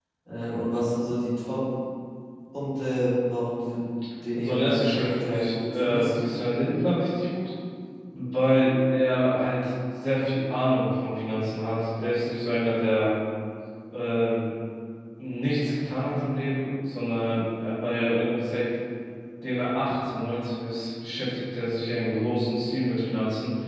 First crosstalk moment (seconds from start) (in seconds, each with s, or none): 4.3 s